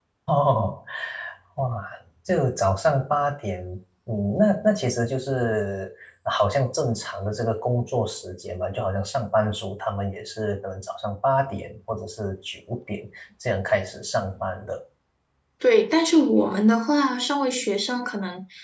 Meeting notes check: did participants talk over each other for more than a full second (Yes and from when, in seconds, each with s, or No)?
No